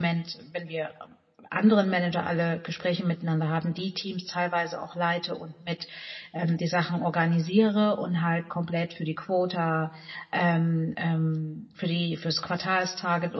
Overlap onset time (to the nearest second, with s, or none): none